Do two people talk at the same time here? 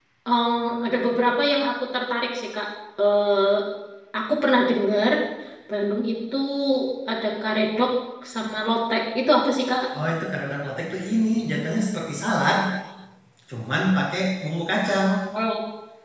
No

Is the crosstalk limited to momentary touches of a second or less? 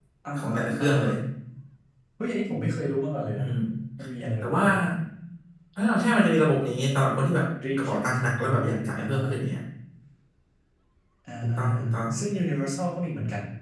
No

